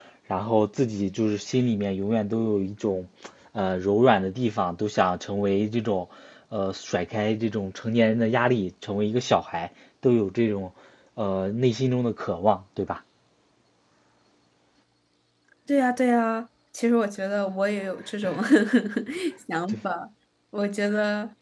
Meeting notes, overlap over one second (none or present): none